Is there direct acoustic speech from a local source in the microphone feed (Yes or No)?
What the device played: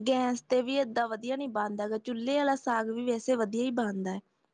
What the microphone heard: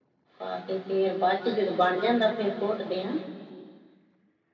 Yes